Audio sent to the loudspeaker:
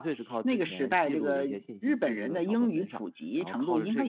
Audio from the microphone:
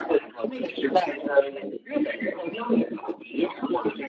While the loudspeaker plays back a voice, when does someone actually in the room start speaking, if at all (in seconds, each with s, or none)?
none